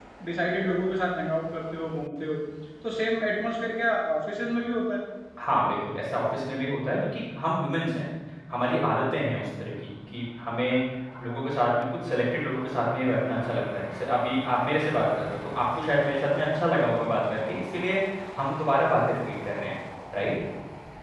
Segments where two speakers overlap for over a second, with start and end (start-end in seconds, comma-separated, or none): none